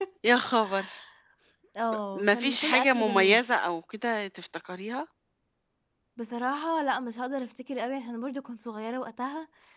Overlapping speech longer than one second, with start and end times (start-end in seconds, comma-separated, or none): 2.1-3.4